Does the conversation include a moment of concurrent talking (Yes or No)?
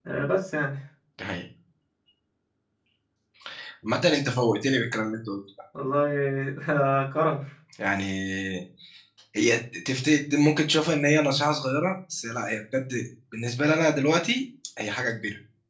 No